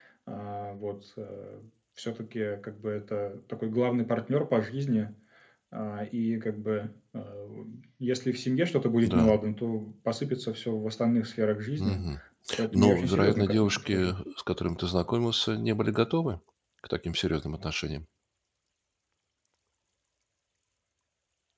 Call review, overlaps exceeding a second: present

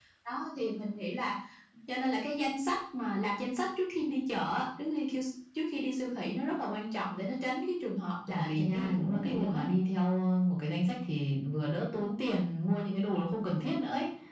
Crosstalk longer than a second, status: present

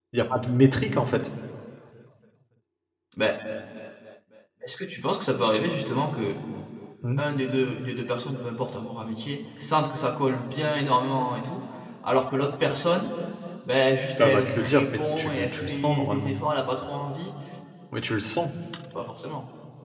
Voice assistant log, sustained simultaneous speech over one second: present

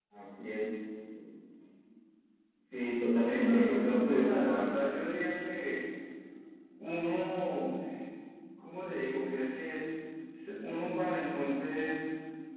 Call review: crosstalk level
present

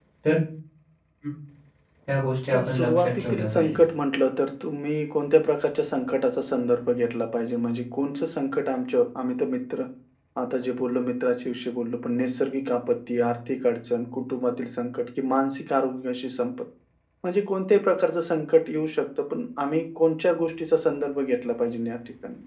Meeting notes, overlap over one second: present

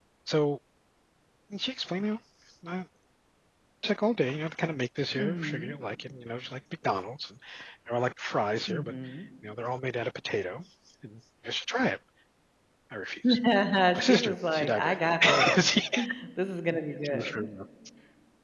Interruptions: present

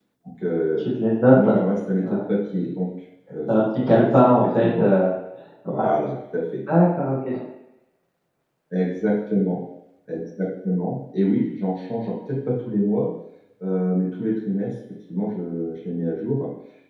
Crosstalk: present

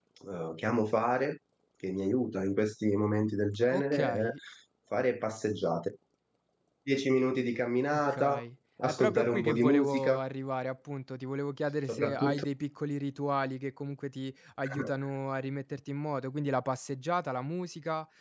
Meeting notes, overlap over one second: present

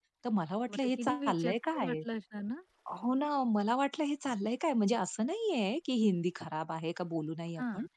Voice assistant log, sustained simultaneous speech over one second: present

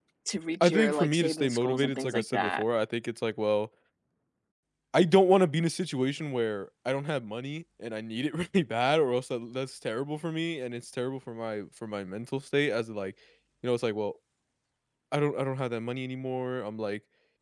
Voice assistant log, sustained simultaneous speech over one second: present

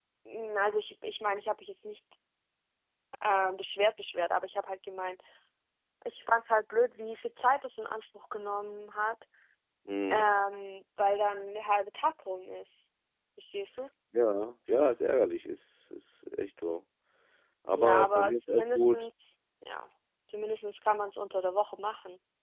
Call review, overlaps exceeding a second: present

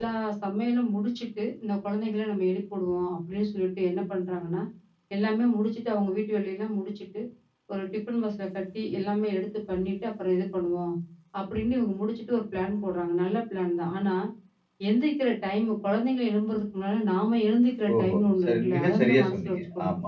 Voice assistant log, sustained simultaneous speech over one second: present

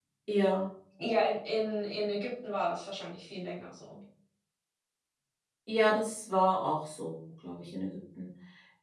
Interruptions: none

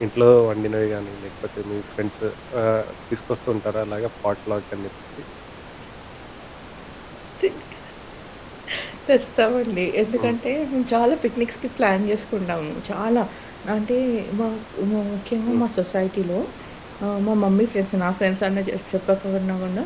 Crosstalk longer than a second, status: none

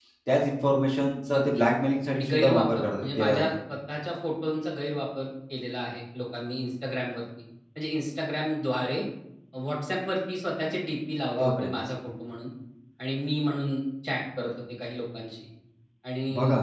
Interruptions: present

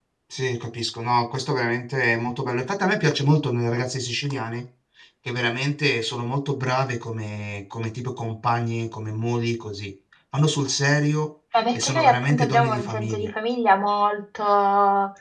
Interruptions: present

